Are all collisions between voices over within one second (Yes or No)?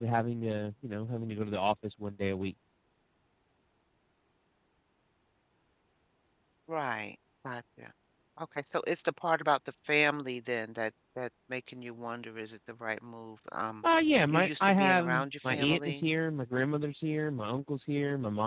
No